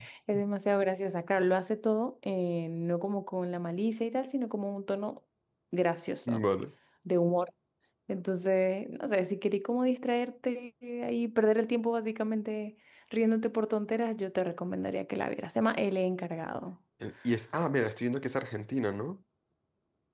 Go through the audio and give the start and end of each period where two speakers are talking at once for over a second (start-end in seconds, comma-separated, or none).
none